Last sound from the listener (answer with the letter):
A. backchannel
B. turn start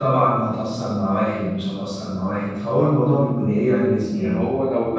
B